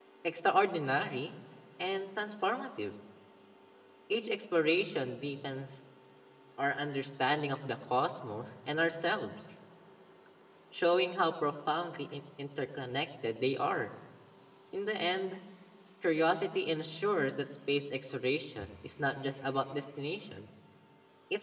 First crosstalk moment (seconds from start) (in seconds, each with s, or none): none